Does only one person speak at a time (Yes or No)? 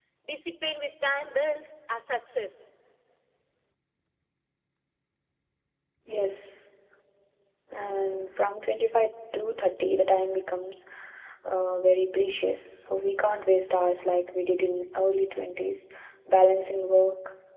Yes